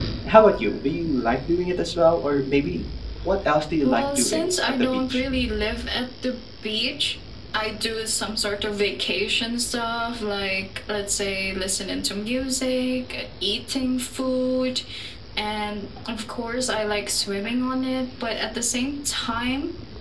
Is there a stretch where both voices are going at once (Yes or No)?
Yes